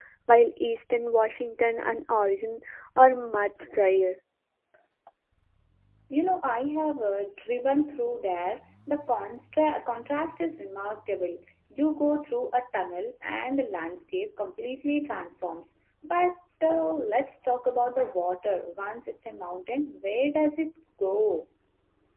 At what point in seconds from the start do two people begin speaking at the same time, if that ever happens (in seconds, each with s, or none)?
none